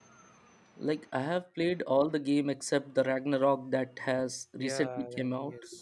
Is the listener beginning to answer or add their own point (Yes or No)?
Yes